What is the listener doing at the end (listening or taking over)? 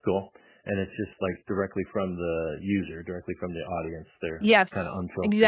taking over